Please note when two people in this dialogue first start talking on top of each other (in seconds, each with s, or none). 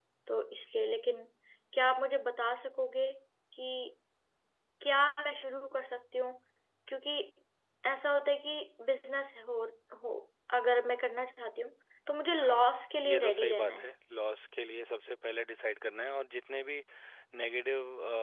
12.4 s